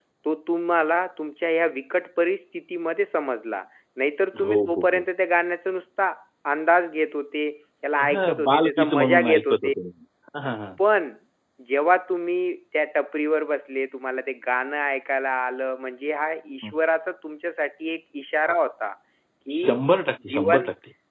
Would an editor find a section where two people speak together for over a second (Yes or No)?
Yes